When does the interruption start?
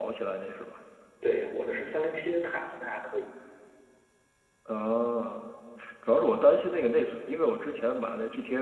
none

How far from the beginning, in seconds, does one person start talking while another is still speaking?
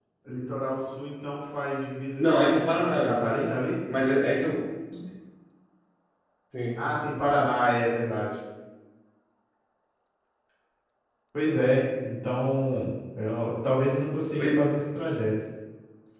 2 s

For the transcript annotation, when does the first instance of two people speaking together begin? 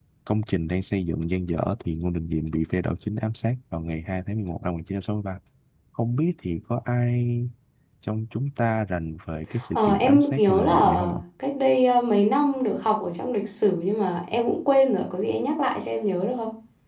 10 s

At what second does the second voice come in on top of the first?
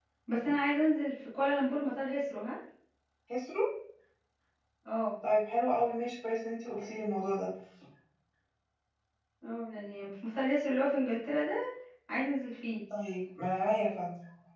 none

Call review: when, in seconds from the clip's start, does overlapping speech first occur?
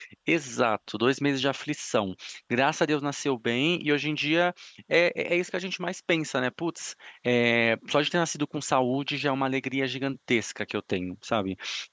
none

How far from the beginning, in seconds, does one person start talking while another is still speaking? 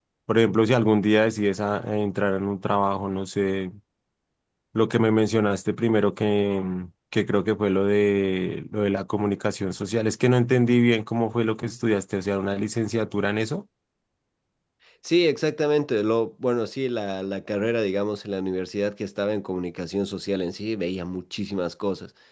none

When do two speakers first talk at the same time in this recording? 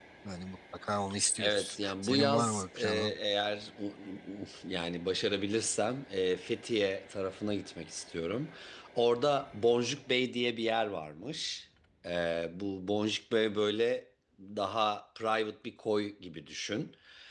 1 s

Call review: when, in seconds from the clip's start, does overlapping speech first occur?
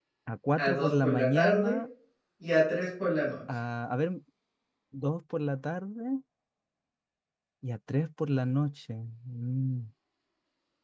1 s

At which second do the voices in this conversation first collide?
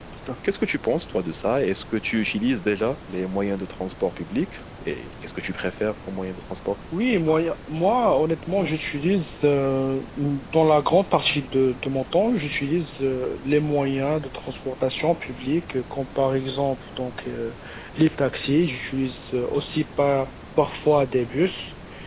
none

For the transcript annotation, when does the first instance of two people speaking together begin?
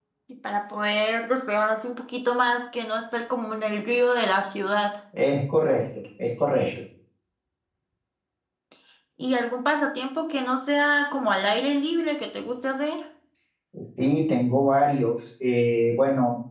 none

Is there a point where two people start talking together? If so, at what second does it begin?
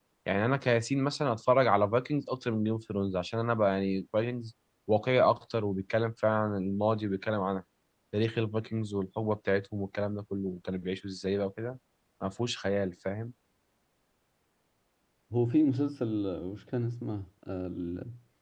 none

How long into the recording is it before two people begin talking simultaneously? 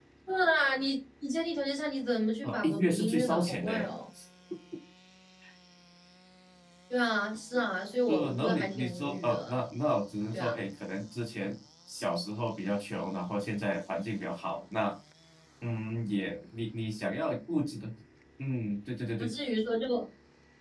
2 s

